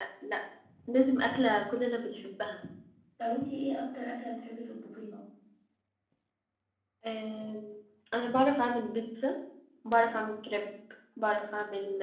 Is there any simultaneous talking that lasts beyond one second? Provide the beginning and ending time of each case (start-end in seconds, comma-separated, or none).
none